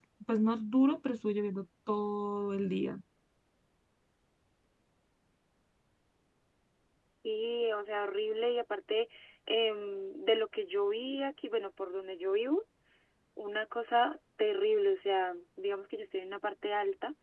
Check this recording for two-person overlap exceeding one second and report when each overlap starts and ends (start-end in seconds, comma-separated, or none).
none